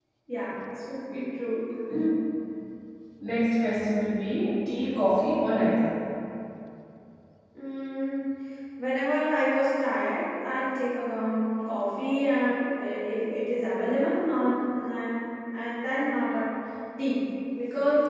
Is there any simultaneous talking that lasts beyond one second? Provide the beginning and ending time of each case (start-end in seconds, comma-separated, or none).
none